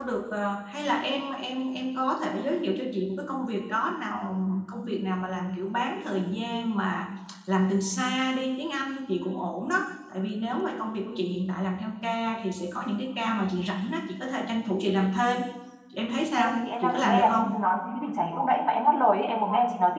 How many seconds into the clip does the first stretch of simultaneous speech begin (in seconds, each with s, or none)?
16.4 s